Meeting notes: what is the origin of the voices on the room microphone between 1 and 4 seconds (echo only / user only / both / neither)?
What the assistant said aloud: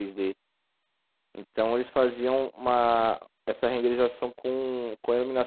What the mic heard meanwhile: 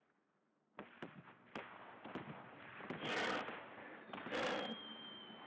neither